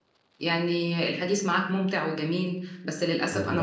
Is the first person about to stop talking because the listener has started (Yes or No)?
No